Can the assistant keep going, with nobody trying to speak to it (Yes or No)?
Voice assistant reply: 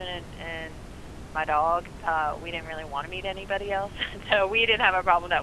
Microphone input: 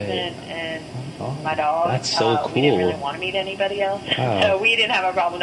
No